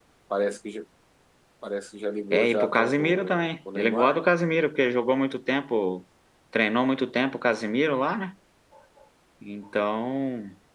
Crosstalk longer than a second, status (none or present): present